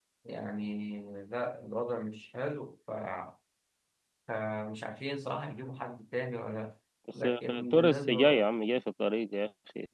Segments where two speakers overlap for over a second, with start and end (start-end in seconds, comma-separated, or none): 7.2-8.5